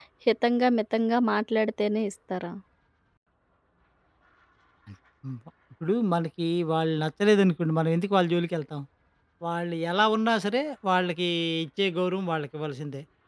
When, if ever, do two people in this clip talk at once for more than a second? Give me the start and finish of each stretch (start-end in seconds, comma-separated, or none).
none